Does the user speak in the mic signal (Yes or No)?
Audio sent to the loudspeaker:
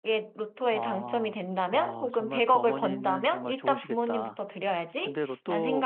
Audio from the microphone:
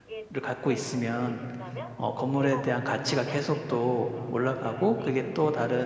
Yes